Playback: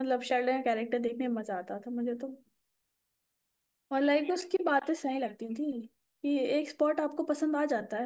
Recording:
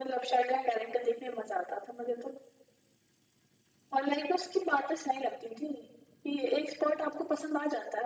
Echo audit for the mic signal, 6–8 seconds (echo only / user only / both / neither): echo only